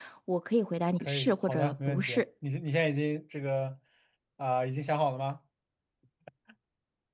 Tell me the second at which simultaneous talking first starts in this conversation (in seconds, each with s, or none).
1.0 s